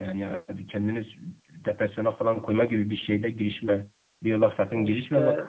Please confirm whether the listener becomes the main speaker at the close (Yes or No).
No